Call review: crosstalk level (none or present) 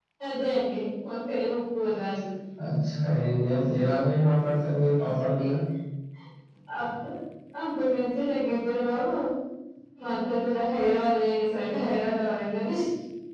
none